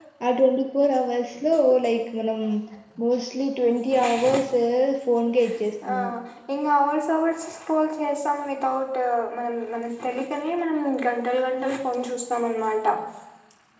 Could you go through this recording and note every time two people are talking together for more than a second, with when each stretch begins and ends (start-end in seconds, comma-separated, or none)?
none